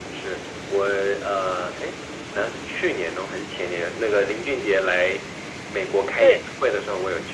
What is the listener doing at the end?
listening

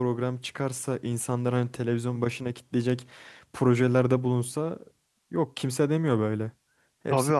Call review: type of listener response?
taking over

